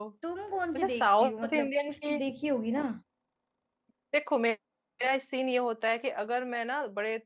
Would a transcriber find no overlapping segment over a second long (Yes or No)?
No